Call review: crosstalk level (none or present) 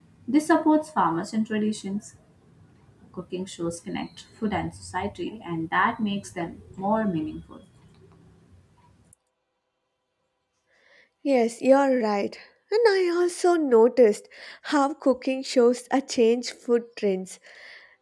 none